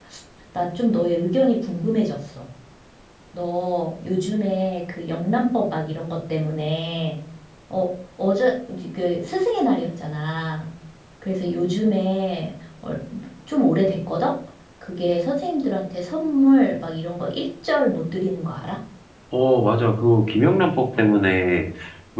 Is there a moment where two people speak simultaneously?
No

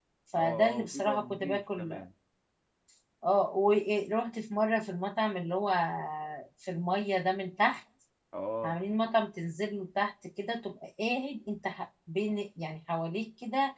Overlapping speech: Yes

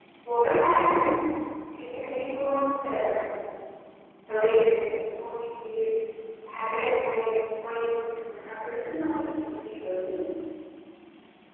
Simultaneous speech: No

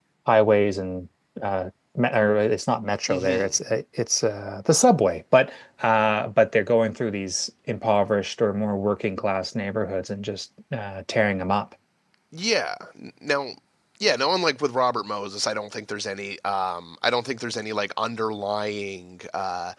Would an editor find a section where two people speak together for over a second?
No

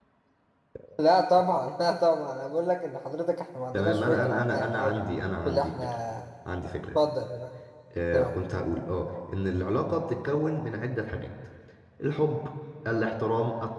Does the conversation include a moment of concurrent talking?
Yes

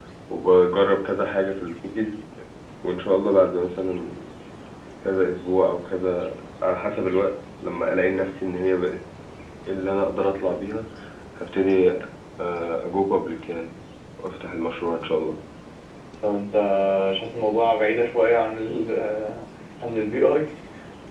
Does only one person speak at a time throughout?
Yes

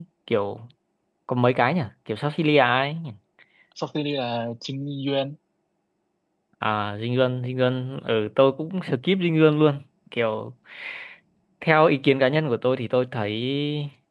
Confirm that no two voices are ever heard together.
Yes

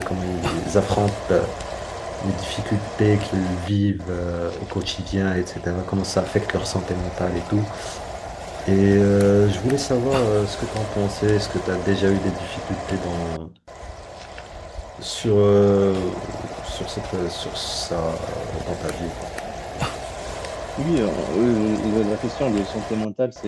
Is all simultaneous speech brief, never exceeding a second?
Yes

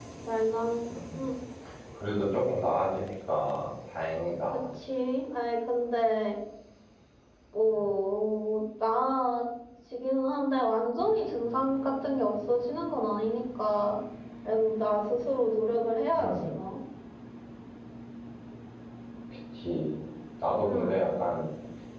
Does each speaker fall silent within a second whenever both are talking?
Yes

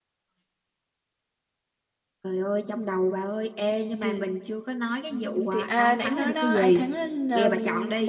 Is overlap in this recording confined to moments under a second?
No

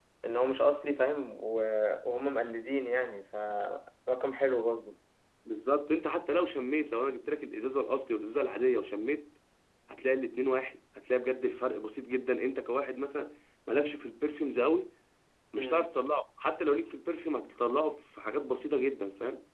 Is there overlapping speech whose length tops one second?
No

